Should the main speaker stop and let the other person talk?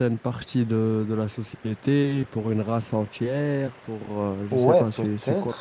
Yes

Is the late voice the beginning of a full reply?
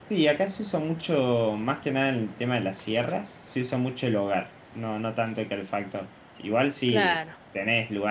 No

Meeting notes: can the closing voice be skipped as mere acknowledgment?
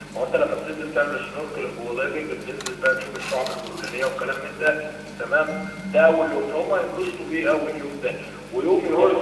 No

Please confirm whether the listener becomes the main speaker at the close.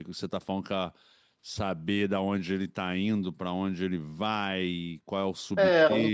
Yes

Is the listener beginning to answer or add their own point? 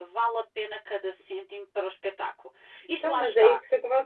Yes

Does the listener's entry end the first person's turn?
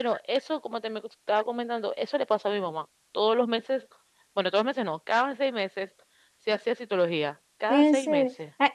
Yes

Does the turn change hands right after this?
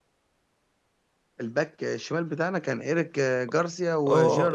Yes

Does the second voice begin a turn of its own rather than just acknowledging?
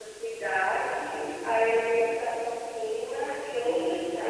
Yes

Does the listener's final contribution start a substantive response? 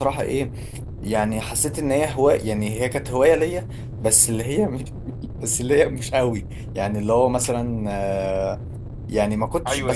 Yes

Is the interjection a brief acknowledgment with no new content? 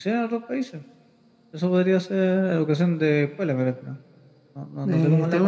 No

